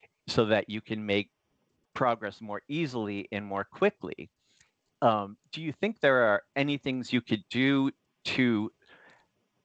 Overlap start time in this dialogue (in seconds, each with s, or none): none